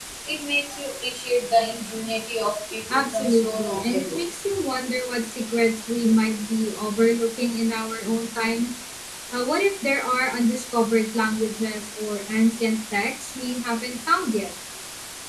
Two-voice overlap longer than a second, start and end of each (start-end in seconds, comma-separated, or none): 2.9-4.2